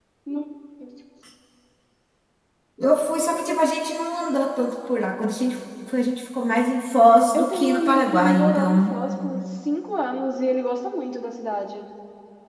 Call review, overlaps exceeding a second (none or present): present